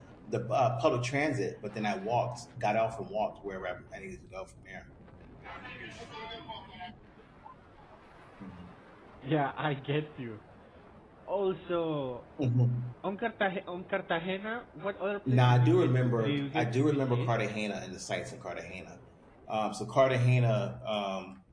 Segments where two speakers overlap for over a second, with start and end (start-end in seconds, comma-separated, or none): 15.3-17.3